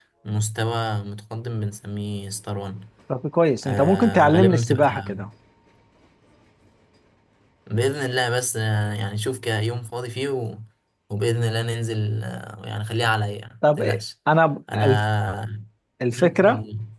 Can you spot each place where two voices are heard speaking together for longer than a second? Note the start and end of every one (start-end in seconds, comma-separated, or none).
3.6-5.1